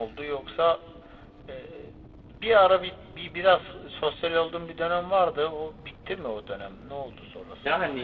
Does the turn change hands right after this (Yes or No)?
Yes